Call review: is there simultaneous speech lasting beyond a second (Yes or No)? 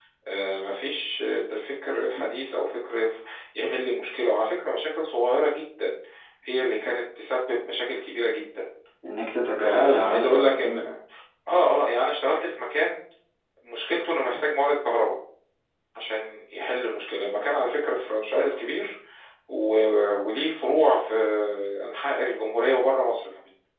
Yes